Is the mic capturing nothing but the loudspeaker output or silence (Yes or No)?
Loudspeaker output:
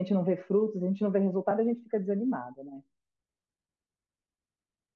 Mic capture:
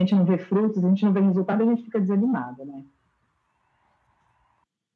Yes